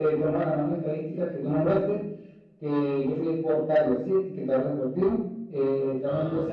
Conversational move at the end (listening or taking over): listening